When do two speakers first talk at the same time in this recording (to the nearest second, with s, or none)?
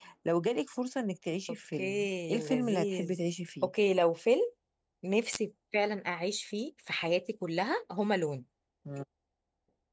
2 s